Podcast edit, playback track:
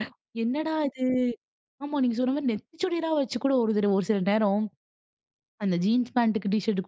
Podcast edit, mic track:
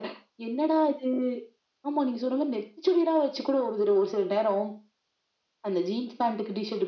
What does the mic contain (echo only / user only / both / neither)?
echo only